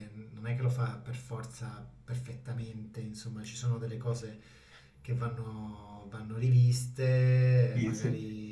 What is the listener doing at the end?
listening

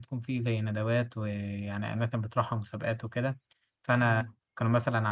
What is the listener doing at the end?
listening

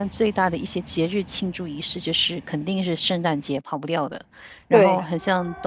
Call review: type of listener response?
listening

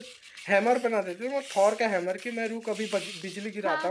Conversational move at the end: taking over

